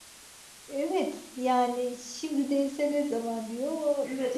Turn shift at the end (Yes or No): Yes